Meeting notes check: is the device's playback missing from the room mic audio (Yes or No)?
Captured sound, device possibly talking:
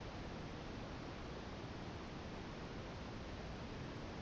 Yes